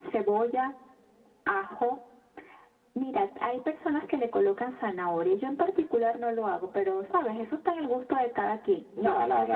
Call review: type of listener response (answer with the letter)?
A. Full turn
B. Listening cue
A